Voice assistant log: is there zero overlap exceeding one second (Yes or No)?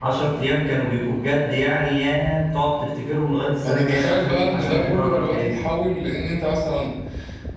No